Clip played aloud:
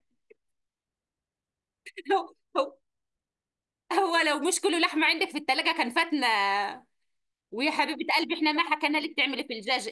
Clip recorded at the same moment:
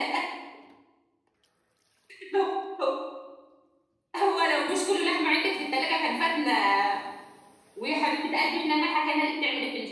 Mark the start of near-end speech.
none

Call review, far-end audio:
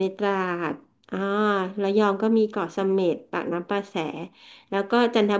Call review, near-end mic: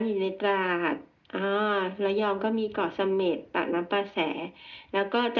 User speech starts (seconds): none

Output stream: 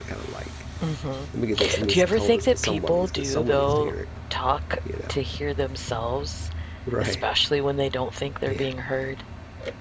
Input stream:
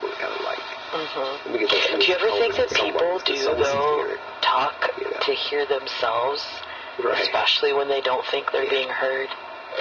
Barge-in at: 3 s

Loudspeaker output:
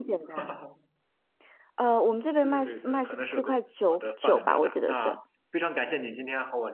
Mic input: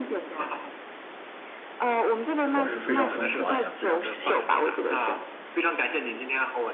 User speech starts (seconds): 3 s

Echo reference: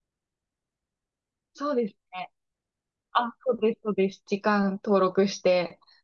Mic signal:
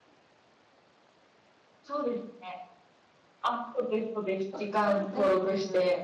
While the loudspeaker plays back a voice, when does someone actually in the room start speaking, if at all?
5 s

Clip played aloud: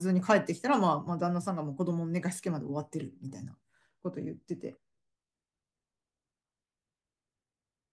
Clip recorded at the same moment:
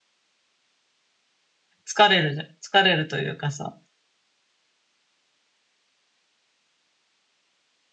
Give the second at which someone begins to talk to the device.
2 s

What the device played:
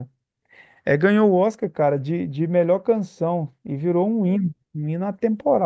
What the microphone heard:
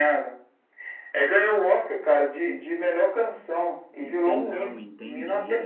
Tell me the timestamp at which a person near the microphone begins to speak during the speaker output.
4 s

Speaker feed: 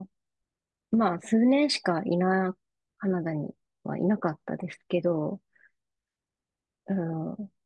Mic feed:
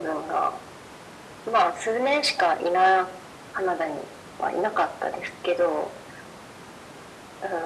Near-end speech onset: none

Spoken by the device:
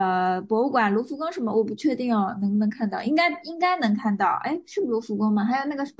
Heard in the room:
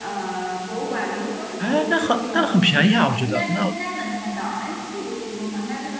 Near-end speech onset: 2 s

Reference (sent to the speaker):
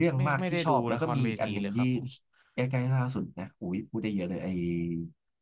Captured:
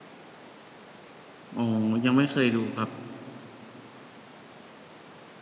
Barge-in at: 2 s

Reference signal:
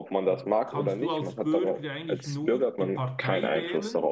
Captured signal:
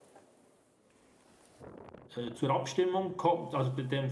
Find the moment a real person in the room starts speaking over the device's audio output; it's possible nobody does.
2 s

